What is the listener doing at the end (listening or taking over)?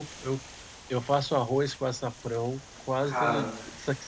listening